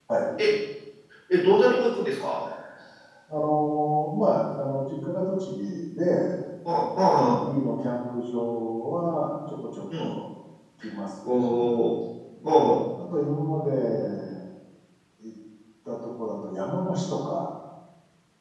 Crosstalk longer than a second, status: none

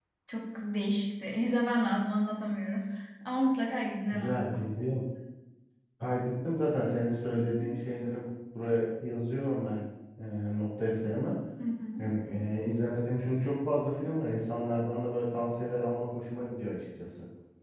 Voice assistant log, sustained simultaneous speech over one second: none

